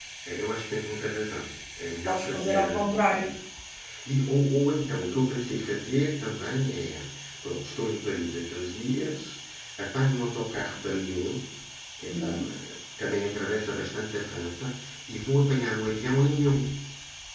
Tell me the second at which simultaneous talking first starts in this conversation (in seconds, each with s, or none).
2.1 s